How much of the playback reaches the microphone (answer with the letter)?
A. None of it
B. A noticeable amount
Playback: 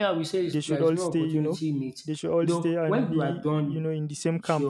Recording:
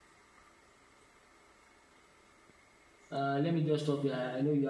A